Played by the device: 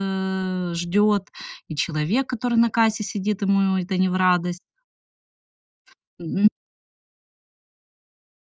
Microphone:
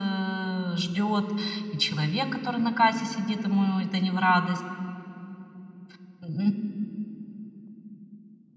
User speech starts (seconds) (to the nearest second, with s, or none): none